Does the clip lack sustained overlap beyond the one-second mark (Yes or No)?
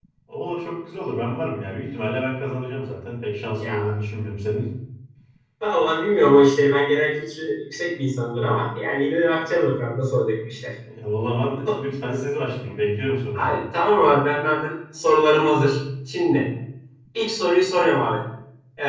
Yes